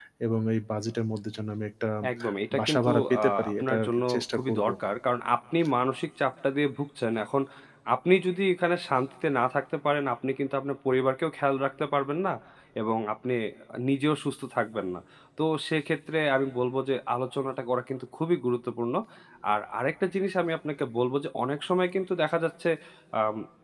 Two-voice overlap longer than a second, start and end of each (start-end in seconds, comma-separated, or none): 2.6-4.7